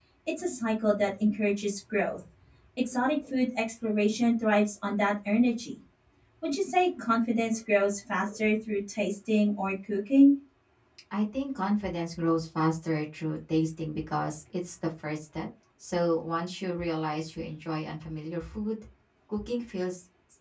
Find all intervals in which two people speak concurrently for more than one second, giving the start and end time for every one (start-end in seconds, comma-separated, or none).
none